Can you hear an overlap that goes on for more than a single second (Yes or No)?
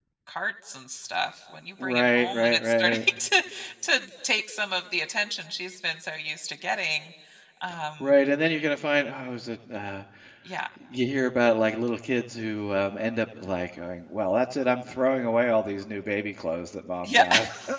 Yes